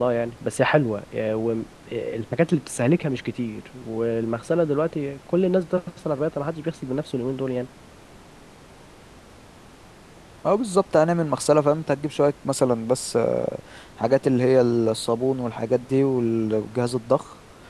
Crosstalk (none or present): none